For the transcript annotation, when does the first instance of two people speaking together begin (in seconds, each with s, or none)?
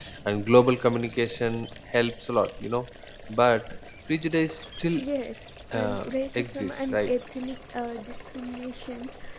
5.7 s